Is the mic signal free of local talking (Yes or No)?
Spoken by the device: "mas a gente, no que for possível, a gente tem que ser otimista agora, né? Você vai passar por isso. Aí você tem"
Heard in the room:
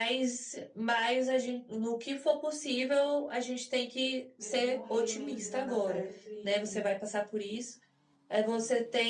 No